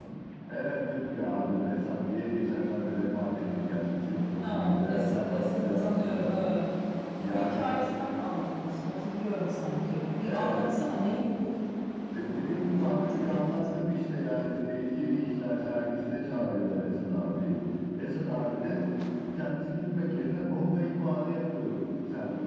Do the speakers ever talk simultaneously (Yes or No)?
Yes